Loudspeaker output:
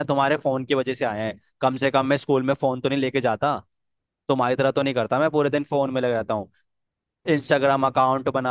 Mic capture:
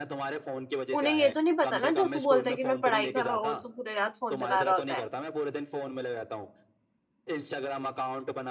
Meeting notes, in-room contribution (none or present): present